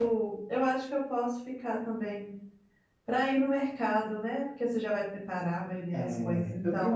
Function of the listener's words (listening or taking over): taking over